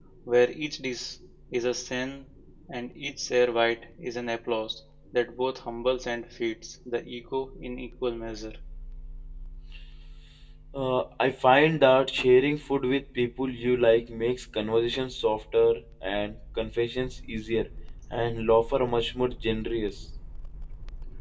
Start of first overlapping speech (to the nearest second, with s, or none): none